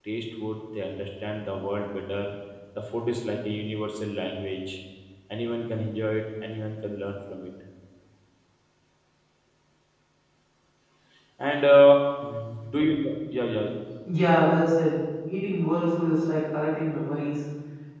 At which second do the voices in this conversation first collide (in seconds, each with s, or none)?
none